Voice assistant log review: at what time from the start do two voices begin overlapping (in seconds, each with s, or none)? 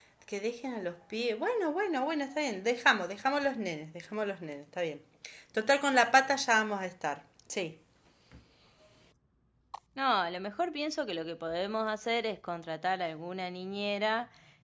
none